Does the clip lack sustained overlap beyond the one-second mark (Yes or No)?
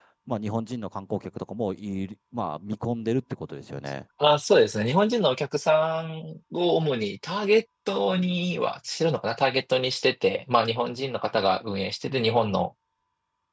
Yes